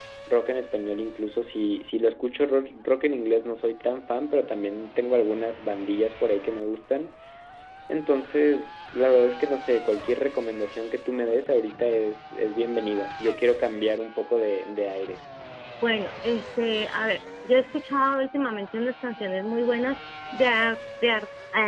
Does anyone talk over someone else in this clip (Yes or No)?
No